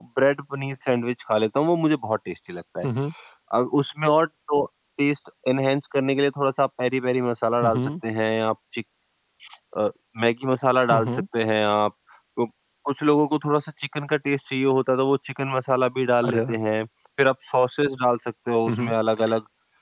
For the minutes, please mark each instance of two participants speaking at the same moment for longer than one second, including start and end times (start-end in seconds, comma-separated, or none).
none